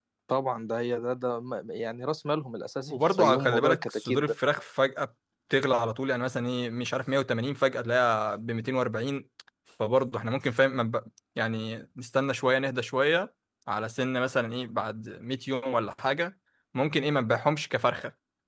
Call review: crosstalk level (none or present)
present